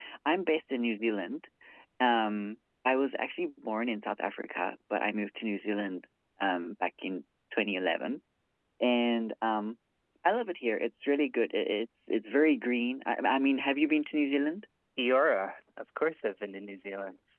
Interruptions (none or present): none